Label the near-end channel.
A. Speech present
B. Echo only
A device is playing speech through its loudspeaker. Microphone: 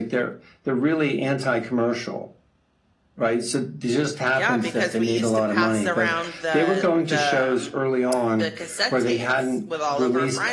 A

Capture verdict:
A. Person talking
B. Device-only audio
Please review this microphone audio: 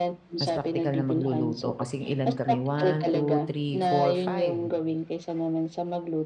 A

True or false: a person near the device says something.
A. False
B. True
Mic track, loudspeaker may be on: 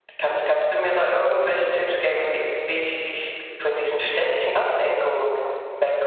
A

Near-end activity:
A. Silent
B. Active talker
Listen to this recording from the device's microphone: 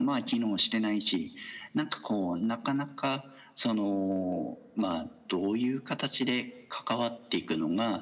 A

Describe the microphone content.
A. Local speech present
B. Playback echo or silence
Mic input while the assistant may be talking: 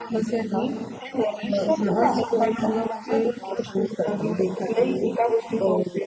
B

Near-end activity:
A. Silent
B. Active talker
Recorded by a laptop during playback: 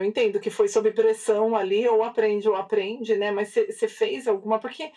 A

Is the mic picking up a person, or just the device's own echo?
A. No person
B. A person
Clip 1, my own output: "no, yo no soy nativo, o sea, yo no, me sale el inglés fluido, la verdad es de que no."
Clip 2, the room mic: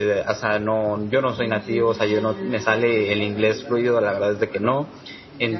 B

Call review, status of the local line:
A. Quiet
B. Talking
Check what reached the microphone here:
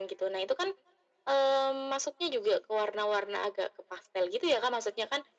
A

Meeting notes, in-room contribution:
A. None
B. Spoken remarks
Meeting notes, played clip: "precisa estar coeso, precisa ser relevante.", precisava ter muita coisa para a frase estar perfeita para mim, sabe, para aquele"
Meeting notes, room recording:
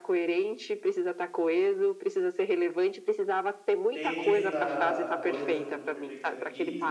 B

